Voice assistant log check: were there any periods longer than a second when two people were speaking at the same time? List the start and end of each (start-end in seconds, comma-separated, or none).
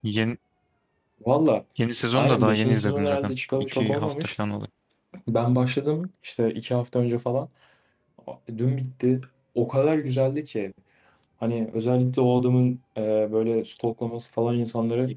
2.1-4.3